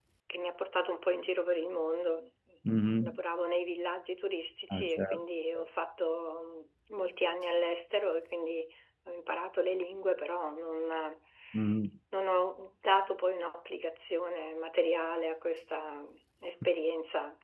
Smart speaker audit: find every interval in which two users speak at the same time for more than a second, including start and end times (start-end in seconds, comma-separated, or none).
none